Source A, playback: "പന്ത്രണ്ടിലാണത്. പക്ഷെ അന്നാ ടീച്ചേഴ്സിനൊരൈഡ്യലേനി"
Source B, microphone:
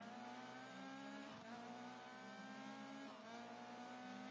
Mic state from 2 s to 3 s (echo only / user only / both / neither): neither